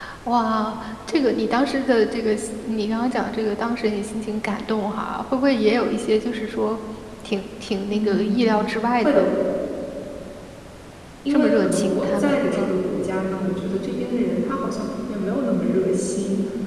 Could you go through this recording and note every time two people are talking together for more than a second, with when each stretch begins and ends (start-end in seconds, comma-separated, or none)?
11.3-12.7